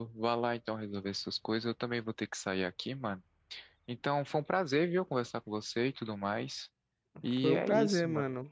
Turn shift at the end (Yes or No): Yes